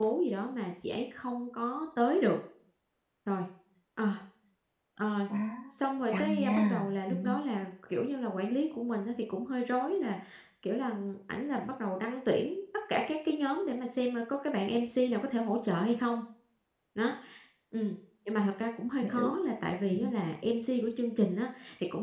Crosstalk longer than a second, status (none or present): present